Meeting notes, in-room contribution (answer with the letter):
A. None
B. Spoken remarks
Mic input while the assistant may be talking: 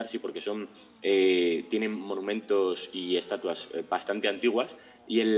A